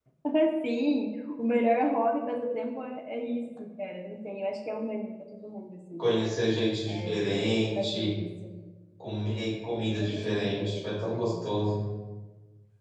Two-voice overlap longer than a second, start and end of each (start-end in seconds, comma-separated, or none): 10.0-11.3